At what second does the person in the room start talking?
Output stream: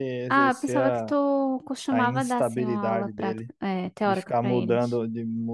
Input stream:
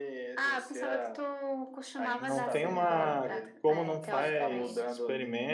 2.2 s

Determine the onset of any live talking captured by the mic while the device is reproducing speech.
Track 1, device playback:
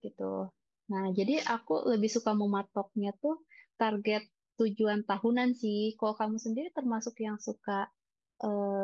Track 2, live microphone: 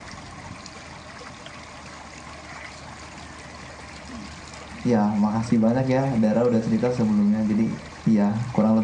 4.9 s

